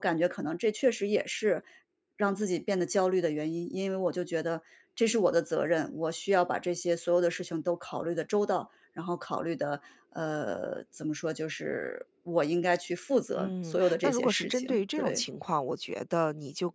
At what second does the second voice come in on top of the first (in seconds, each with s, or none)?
13.4 s